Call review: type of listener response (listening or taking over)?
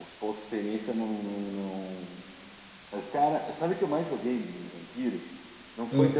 listening